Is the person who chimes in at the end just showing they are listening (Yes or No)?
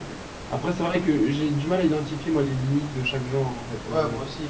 No